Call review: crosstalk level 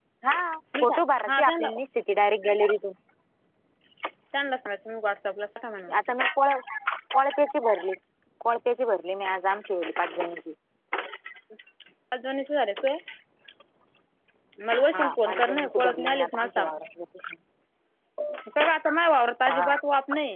present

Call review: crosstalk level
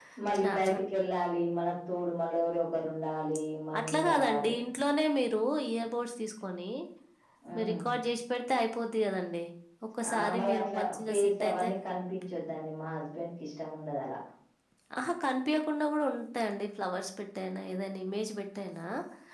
present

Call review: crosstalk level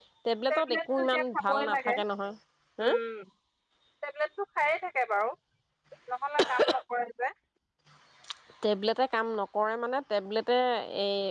present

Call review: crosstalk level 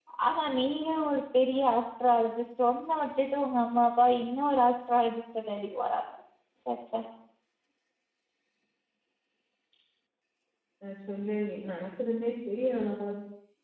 none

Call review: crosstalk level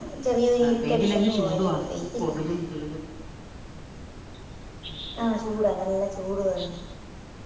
present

